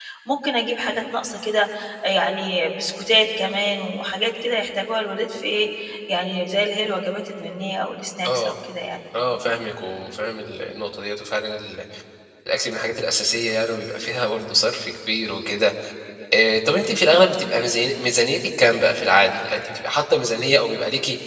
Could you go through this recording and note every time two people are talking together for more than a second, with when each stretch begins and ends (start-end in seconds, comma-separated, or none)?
none